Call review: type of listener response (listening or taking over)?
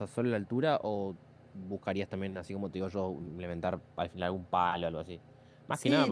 taking over